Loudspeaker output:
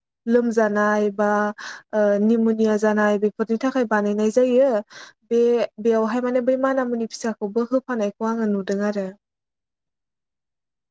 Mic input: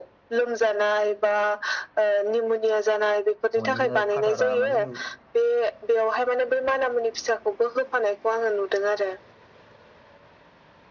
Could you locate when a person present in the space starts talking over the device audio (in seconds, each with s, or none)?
3.6 s